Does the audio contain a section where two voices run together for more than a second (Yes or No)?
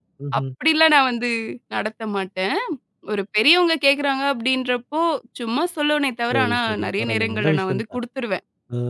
Yes